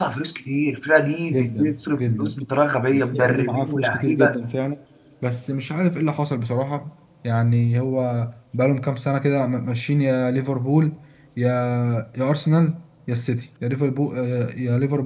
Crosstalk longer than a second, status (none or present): present